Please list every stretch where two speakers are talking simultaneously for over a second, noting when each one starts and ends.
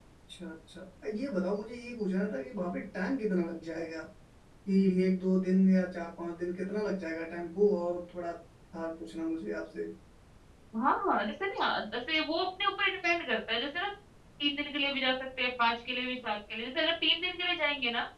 none

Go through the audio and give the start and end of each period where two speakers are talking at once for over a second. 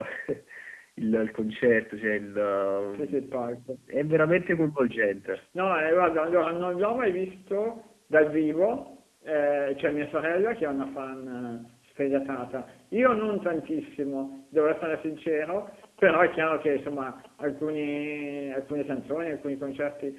none

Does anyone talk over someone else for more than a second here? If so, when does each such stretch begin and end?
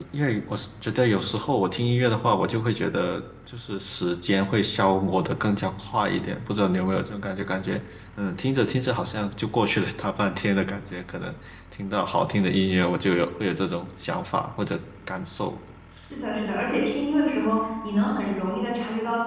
none

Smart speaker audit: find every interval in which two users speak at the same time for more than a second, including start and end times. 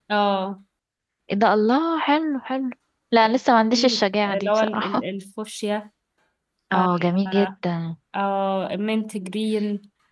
3.7-5.0

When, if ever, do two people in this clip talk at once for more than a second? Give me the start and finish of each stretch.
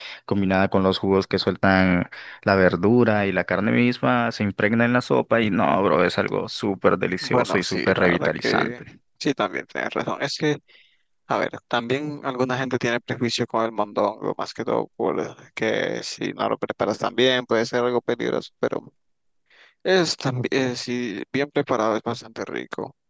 7.2-8.7

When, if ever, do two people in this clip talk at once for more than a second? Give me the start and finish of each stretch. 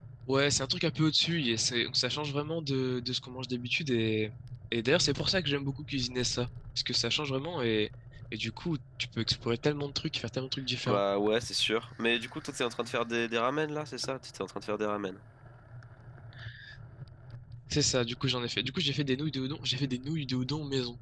none

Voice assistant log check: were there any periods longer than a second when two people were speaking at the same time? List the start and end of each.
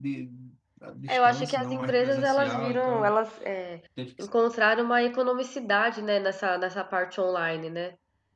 1.1-3.1

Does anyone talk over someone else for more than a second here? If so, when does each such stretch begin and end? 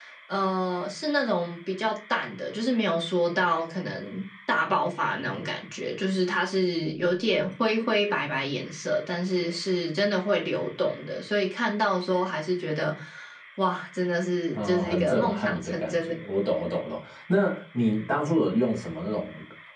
14.6-16.1

